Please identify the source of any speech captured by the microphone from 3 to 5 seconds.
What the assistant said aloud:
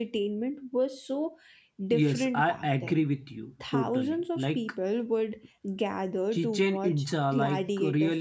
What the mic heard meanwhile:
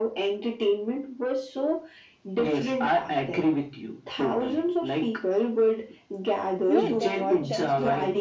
echo only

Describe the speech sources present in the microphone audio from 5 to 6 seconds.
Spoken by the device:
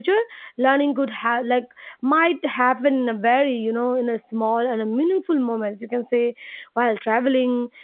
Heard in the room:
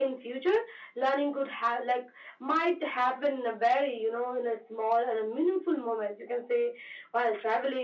echo only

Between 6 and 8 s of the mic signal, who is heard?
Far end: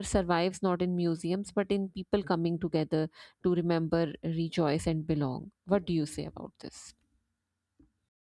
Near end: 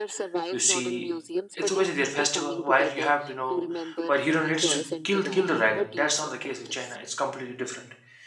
both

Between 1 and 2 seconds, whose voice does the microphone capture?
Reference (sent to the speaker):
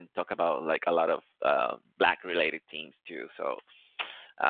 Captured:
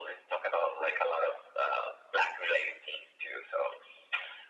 echo only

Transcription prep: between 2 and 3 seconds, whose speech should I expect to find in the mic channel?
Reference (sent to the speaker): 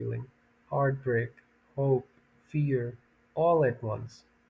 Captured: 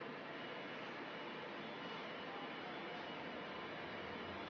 neither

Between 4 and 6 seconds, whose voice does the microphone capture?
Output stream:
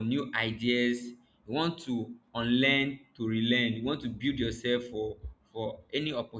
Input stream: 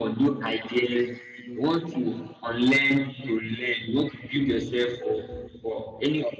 echo only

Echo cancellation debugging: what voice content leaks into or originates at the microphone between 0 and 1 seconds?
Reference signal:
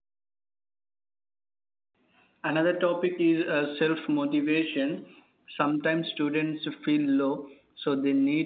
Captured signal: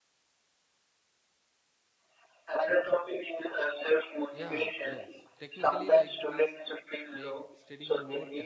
neither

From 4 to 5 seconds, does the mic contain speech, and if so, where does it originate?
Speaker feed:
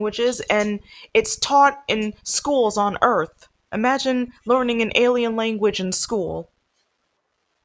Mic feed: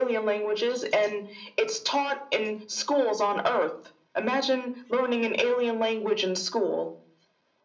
echo only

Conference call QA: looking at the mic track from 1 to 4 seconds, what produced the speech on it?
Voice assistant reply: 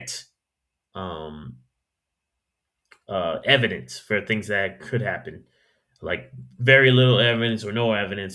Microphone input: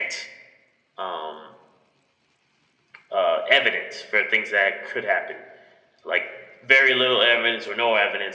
echo only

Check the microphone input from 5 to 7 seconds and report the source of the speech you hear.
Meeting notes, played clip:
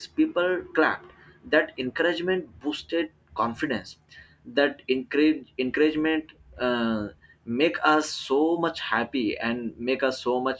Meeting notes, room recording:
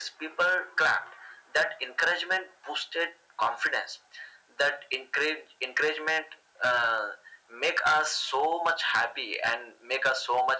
echo only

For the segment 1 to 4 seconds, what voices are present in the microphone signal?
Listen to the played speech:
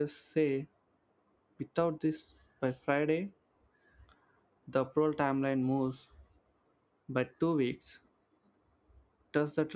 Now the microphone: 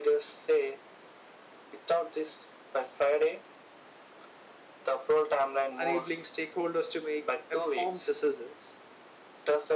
echo only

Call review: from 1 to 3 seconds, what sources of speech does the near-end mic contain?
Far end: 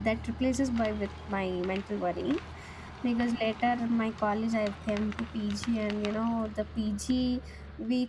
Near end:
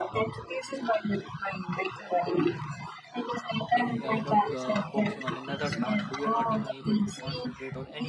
echo only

